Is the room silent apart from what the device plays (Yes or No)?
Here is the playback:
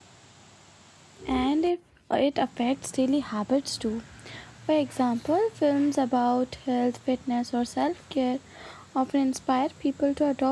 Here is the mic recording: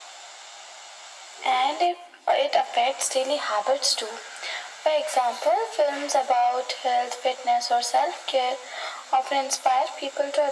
Yes